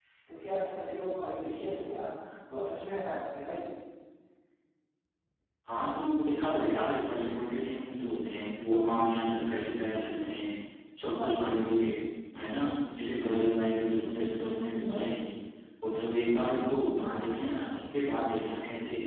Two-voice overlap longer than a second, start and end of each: none

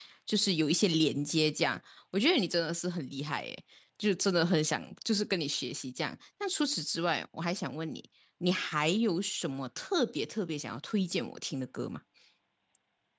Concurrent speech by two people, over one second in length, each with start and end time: none

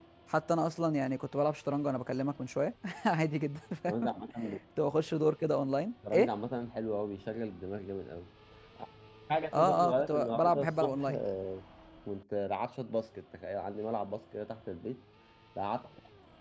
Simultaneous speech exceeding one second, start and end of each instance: 9.5-11.2

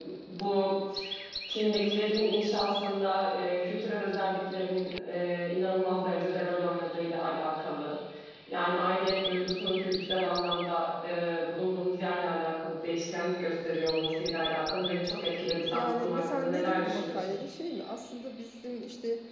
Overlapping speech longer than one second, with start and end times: 15.7-17.2

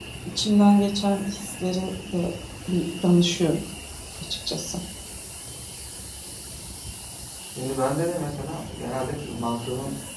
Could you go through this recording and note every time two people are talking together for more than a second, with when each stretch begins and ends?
none

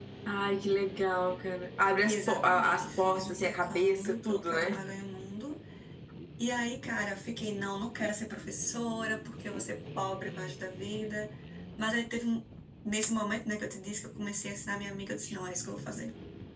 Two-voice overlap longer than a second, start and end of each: 2.0-4.7

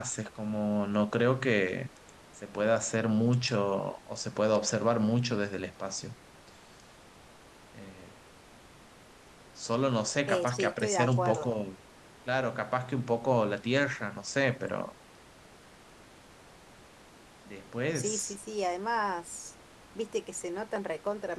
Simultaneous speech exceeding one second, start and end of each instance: 10.3-11.5

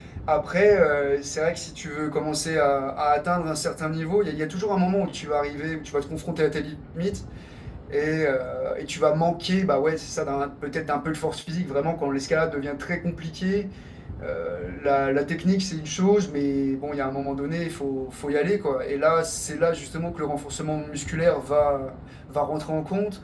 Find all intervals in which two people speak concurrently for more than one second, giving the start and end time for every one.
none

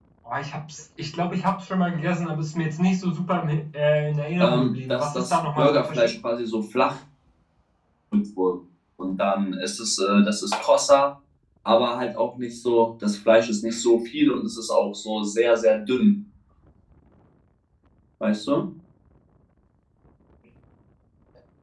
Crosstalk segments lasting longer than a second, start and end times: 4.4-6.1

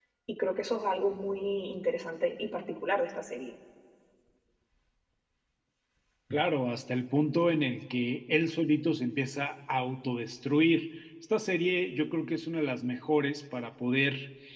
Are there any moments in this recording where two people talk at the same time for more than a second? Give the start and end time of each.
none

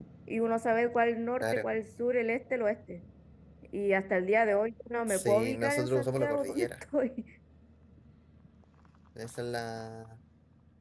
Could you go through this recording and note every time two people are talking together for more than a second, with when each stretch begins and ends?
5.1-6.7

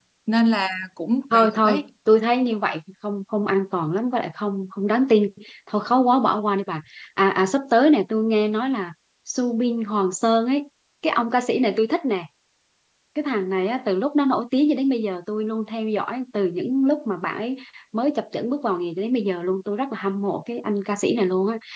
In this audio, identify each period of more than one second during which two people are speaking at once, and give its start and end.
none

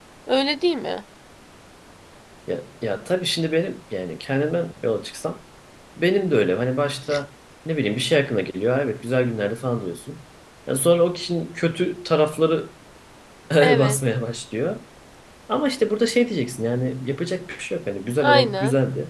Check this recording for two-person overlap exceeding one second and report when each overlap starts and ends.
none

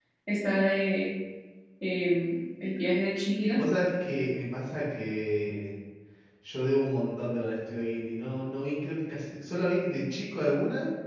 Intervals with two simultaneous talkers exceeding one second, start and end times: none

